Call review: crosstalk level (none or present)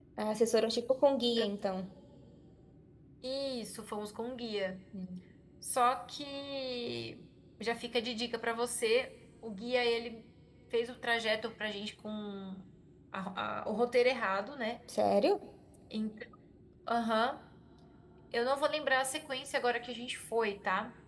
none